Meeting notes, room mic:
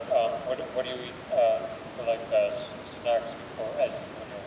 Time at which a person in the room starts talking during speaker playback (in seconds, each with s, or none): none